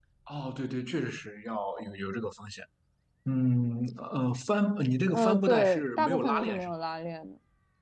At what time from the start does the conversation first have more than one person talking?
5 s

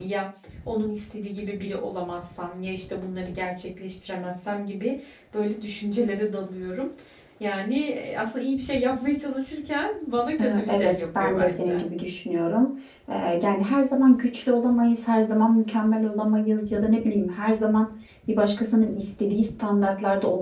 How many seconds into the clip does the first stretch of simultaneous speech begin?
10 s

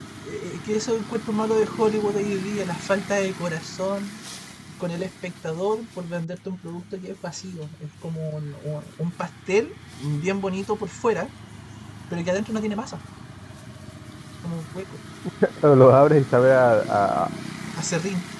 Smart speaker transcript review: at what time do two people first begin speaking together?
none

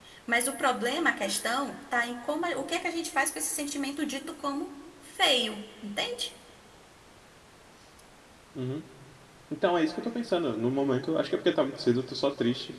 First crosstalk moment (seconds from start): none

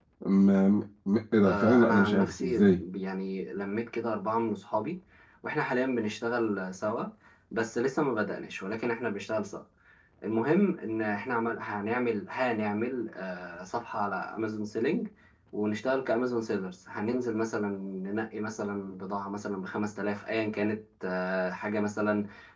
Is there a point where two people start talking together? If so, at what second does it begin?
1 s

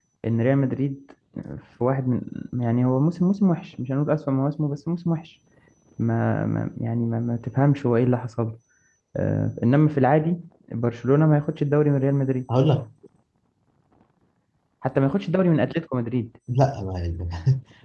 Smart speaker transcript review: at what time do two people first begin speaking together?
none

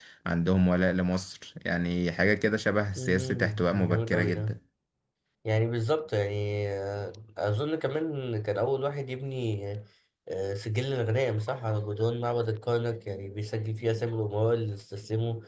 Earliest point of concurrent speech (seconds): 3 s

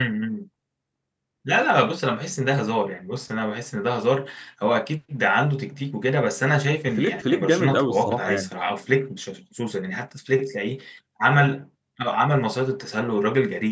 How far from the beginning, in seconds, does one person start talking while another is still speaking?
7 s

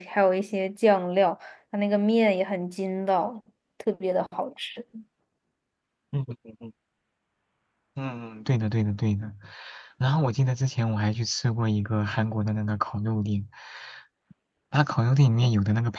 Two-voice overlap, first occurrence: none

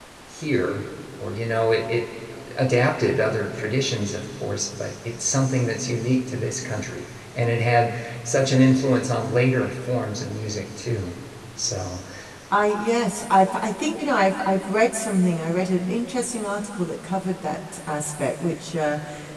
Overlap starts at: none

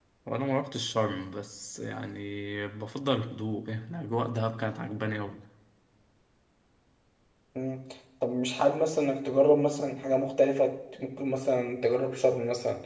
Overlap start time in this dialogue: none

